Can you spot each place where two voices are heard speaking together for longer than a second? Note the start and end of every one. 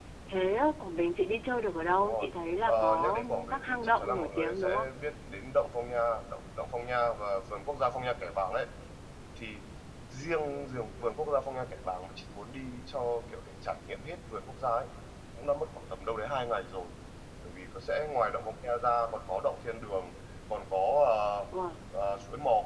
2.7-4.9

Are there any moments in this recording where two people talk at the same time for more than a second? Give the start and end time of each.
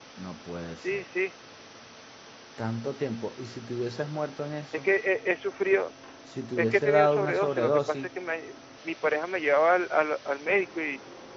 6.6-8.1

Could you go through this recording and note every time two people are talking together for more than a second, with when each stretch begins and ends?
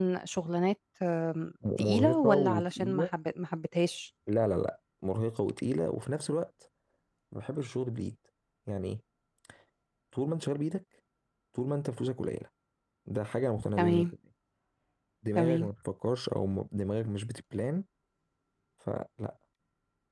1.8-3.1

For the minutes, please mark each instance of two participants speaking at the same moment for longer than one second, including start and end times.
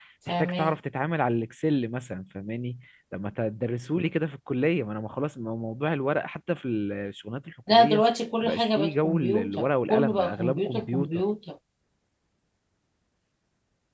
8.4-11.1

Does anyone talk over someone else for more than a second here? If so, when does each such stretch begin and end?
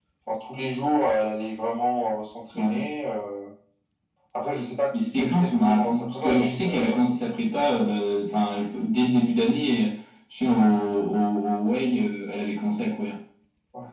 5.1-7.0

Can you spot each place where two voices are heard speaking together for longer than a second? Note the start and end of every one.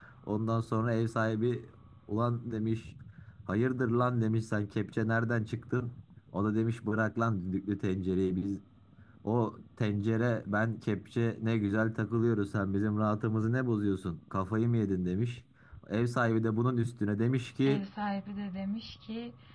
none

